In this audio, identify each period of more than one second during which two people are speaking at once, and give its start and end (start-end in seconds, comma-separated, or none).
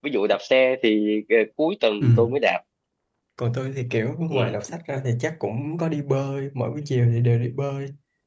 none